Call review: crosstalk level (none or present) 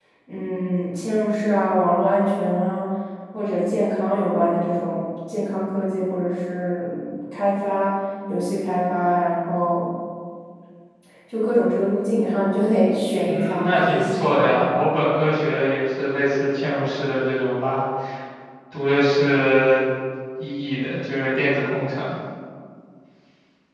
present